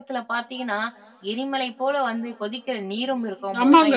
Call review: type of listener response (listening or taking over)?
taking over